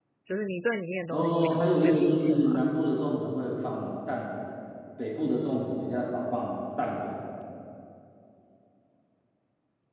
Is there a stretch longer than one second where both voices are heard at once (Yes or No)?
Yes